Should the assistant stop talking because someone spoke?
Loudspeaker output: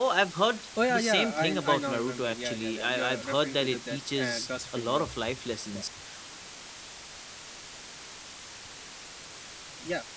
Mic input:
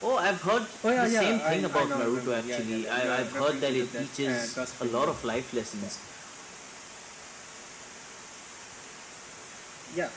No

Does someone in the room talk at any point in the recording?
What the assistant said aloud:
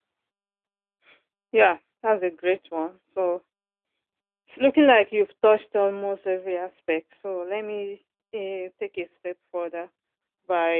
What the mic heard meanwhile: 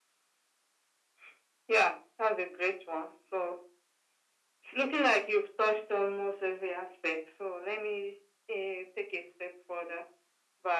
No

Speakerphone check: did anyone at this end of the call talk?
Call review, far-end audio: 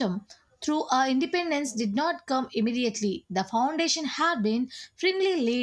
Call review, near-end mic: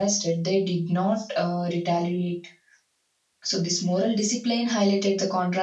Yes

